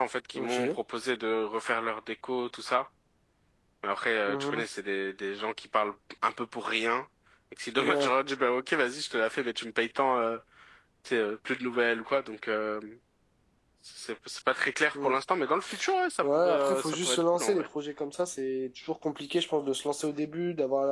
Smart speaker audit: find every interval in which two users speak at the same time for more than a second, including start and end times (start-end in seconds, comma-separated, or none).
16.2-17.6